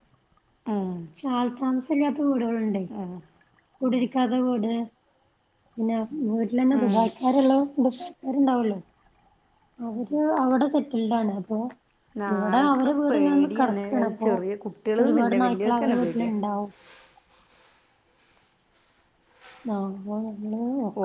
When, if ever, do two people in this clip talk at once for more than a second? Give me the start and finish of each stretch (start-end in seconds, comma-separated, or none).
12.3-14.3, 15.0-16.3